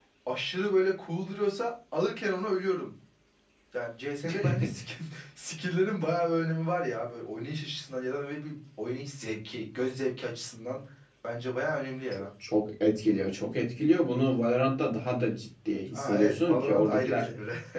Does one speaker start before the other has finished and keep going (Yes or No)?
Yes